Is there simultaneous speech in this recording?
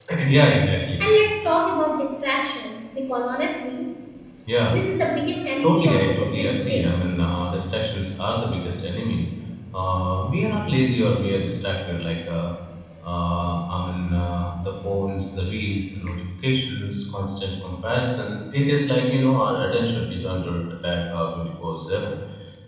Yes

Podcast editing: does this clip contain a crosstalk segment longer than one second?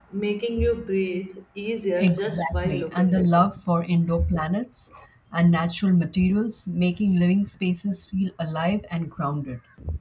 Yes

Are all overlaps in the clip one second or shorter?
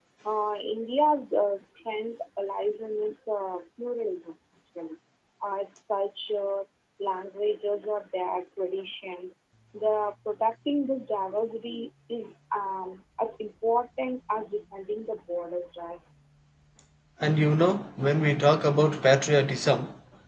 Yes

